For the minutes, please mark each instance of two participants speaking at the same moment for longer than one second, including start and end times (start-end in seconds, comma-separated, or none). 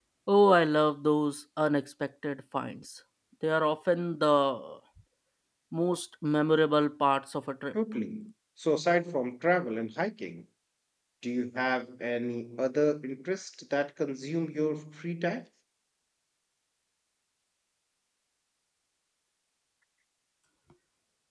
none